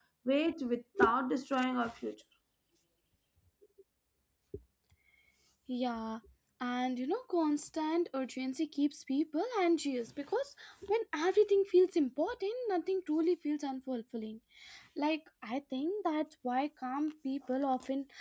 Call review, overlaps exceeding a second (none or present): none